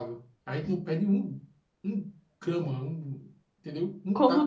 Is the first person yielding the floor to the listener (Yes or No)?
Yes